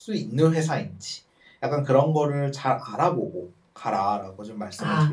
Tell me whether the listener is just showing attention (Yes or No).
No